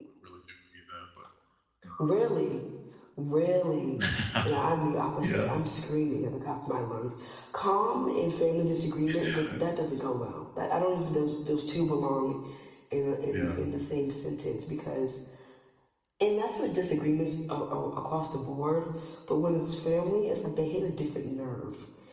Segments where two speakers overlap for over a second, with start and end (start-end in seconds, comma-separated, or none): none